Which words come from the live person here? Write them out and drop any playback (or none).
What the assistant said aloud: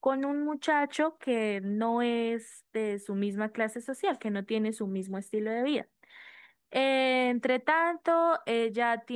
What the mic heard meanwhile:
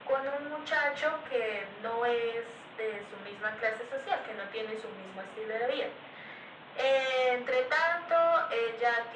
none